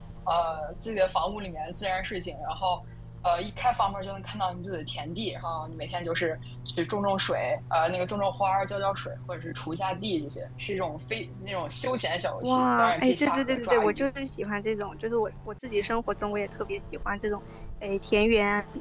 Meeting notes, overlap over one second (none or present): present